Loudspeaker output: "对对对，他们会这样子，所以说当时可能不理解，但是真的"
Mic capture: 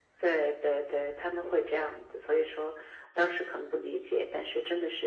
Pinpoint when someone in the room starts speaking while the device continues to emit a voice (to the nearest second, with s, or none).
none